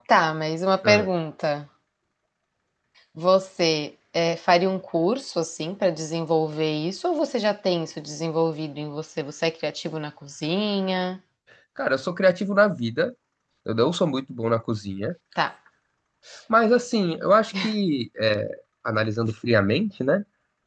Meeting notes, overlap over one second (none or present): none